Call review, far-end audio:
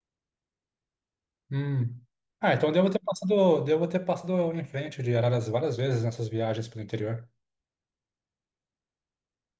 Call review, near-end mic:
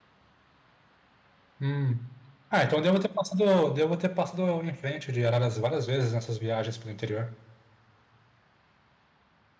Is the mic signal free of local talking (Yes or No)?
Yes